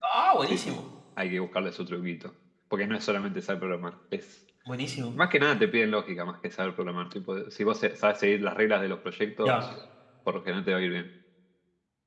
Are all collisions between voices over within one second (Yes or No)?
Yes